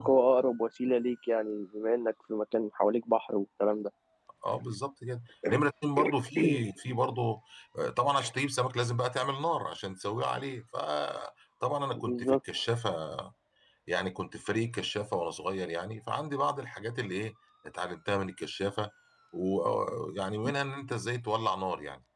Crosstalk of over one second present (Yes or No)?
No